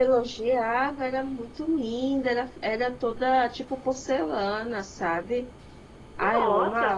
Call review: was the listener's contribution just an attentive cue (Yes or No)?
No